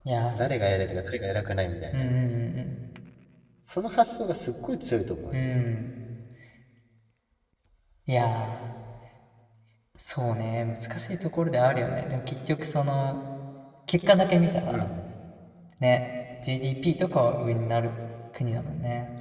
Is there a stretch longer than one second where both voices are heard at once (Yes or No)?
No